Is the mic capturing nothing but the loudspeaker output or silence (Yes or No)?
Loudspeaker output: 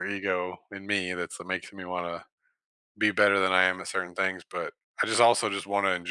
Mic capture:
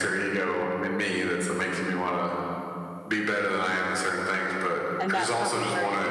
No